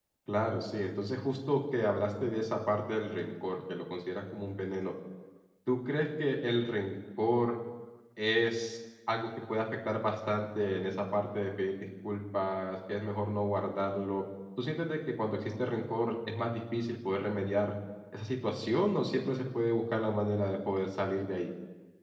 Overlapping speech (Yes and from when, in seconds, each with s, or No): No